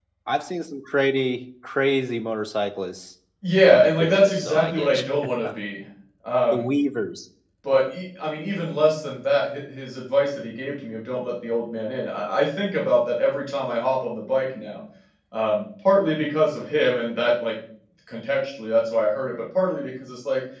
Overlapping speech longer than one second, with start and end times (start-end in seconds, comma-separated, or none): 3.6-5.3